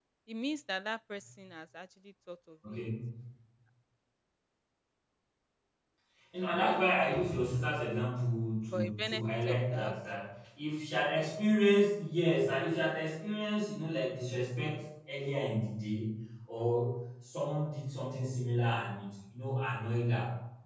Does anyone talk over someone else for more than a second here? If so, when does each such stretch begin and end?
8.7-9.9

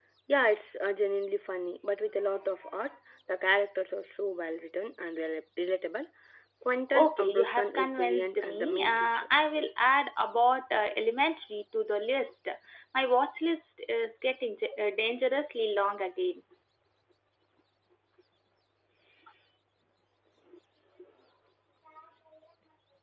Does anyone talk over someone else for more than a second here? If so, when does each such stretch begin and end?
6.9-9.3

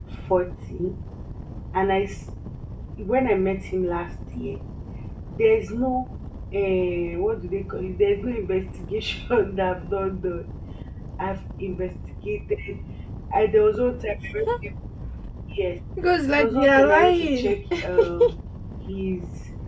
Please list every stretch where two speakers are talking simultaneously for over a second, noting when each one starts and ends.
16.3-17.5

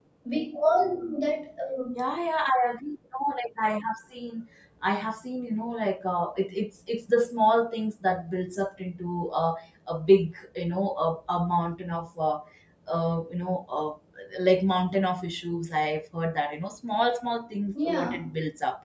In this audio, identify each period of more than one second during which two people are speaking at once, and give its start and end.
none

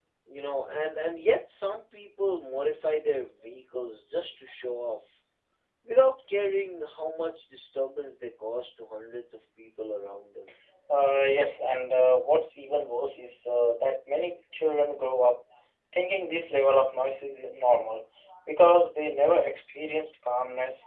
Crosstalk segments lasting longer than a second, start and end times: none

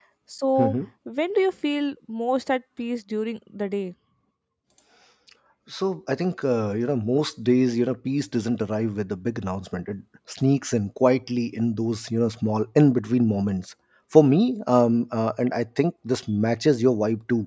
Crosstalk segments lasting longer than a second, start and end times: none

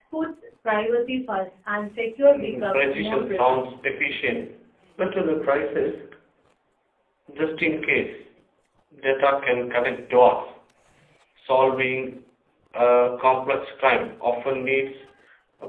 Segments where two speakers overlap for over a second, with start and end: 2.3-3.8

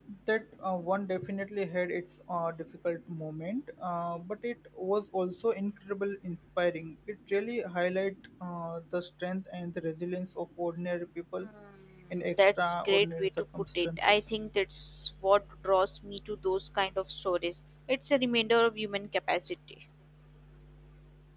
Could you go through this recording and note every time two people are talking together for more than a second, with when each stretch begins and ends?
12.2-14.3

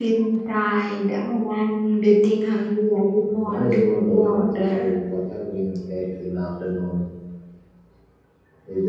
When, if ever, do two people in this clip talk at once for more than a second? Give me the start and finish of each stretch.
3.4-4.9

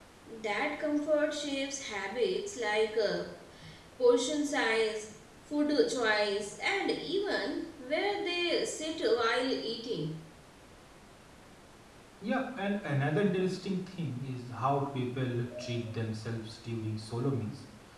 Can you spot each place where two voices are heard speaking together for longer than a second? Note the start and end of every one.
none

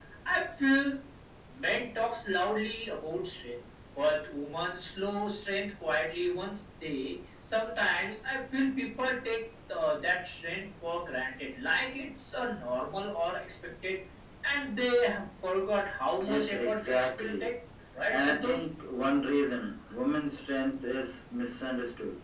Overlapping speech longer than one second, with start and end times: 16.2-17.5

